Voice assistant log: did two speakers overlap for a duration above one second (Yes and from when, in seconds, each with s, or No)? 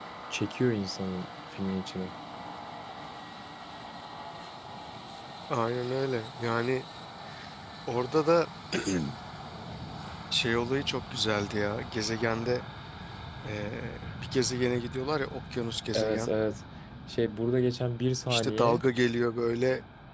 No